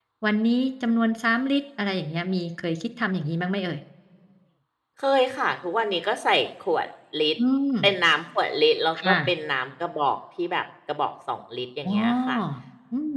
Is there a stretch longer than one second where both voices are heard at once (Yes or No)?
No